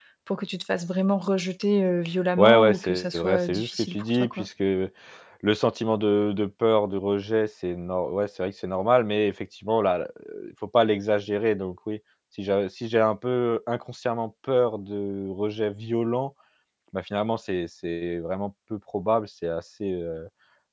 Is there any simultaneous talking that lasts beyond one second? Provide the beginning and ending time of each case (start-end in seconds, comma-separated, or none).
2.4-4.5